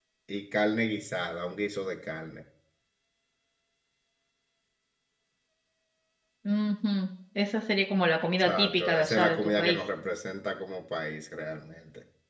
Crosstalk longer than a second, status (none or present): present